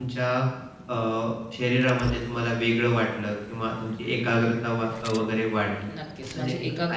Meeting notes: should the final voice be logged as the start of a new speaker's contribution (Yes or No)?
Yes